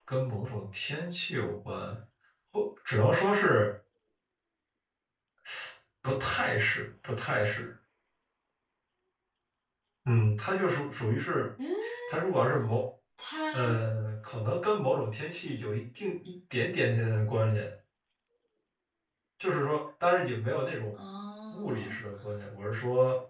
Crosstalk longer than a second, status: none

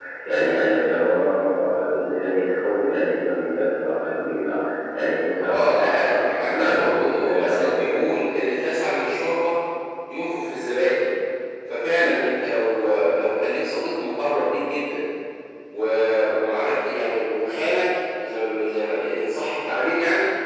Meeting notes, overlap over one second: present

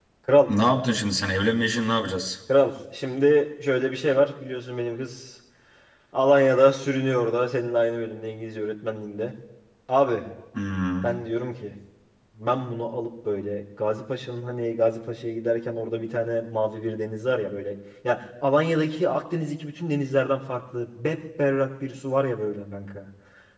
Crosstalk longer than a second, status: none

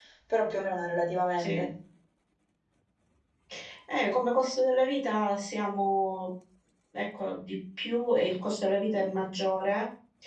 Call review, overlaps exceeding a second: none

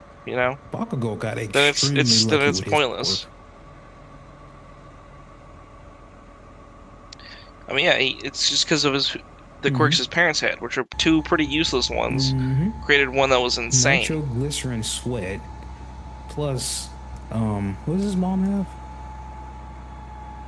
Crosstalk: present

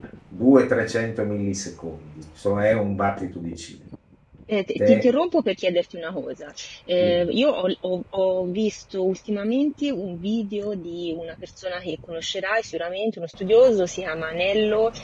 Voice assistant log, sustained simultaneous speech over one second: none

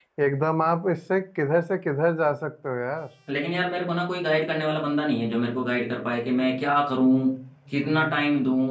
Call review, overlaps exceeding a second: none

